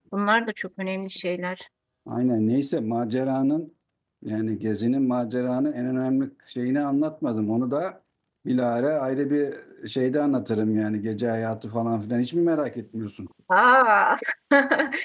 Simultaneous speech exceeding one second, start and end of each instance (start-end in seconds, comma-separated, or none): none